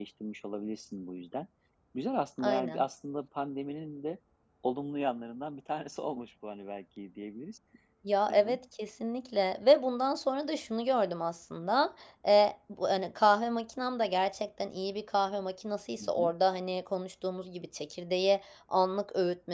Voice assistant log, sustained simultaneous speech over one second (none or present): none